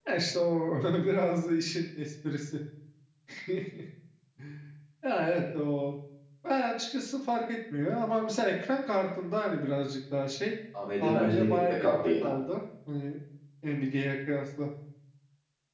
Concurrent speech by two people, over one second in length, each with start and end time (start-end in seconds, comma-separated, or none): 11.0-12.3